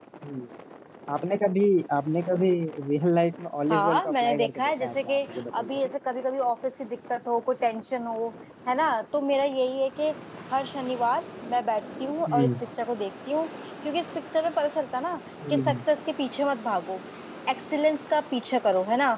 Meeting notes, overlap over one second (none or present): present